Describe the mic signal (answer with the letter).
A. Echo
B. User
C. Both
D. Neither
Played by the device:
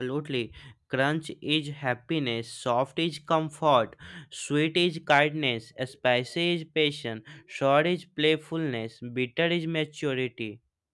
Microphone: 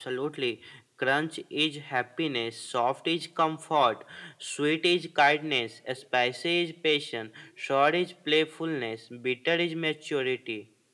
A